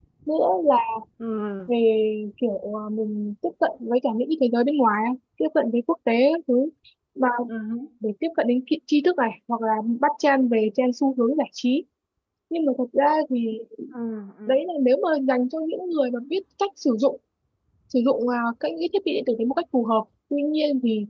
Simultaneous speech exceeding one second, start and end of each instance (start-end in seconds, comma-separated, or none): none